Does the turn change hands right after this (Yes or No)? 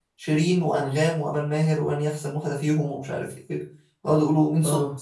No